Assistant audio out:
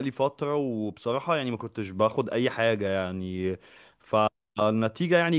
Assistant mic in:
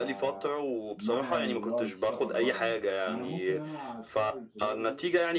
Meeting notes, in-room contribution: present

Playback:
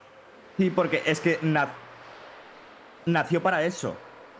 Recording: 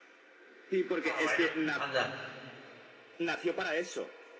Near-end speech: present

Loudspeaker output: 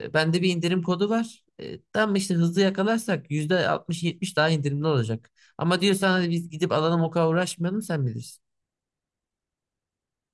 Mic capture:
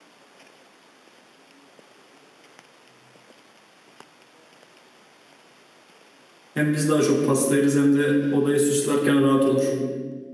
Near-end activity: present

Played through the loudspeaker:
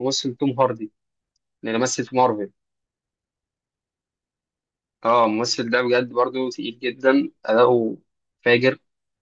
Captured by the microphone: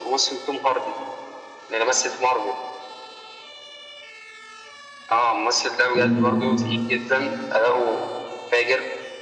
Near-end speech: present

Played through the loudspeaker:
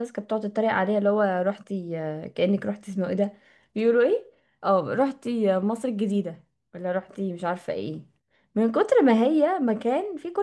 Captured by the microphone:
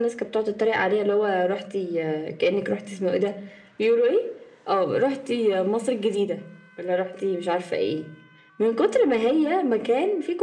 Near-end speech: none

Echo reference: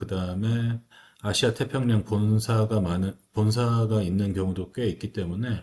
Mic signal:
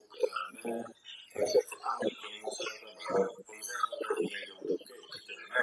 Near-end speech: none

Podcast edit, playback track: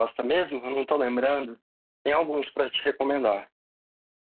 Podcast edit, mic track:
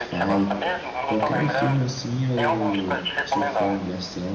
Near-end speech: present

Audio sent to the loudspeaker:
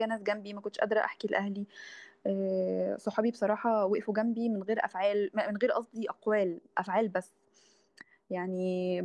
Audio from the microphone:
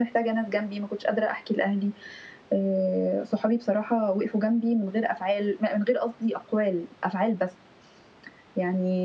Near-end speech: none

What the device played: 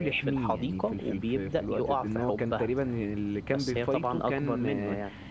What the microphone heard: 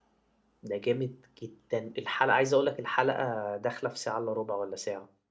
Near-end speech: present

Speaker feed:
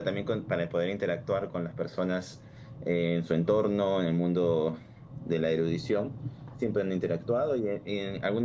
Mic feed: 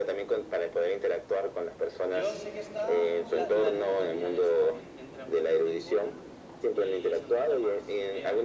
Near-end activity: present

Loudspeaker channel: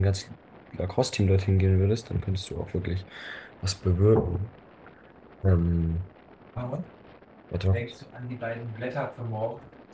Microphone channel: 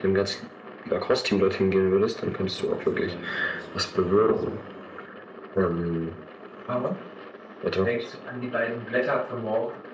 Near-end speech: present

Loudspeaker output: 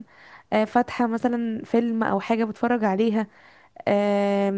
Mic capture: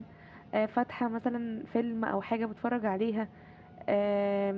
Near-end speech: none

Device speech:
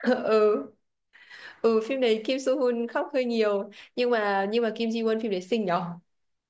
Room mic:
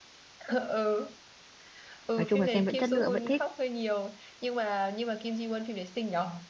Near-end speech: present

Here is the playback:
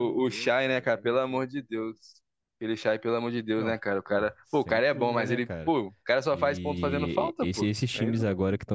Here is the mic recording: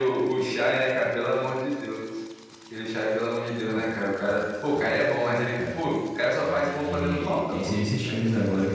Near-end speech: none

